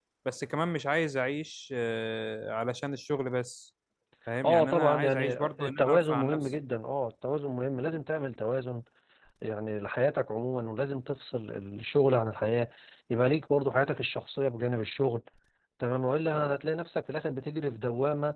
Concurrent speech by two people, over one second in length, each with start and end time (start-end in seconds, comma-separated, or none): 4.4-6.5